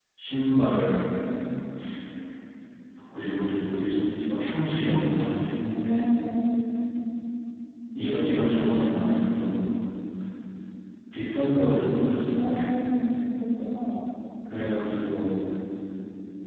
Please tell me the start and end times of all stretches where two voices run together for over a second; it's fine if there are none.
none

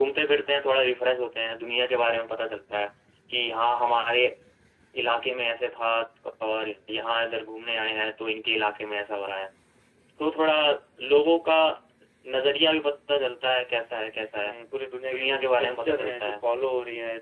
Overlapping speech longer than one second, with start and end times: 15.1-16.3

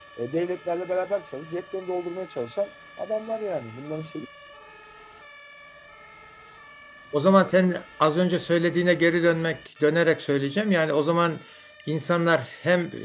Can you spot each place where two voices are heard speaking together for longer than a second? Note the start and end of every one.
none

